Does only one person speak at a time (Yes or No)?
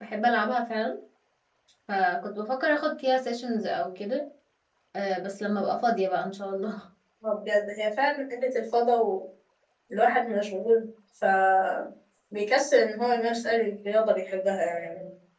Yes